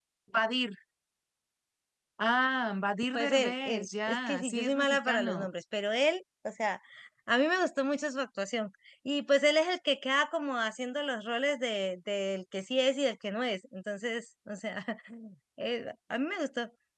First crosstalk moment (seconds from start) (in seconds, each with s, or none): 3.1 s